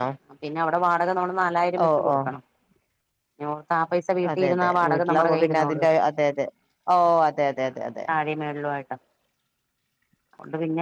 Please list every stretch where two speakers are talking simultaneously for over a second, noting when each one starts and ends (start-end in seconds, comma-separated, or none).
4.4-5.8